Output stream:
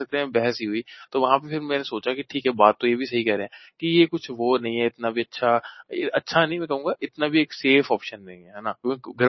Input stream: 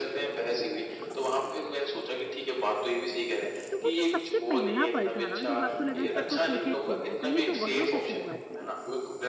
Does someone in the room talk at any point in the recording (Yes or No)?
Yes